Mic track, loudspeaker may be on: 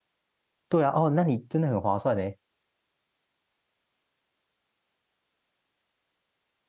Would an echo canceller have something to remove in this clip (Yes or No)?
No